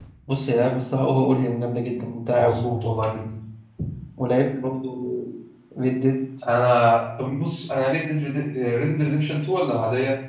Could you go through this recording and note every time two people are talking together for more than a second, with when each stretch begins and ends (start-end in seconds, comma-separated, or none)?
none